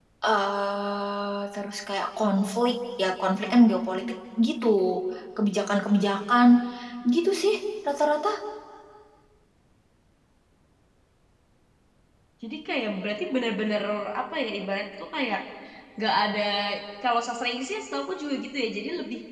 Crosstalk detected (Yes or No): No